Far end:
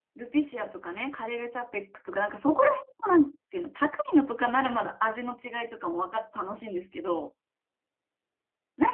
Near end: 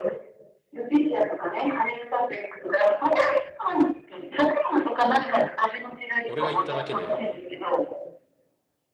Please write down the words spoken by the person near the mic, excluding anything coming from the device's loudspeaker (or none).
俺が言っただけで、